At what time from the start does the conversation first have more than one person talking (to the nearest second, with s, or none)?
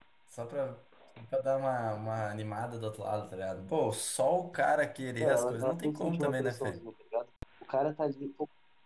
5 s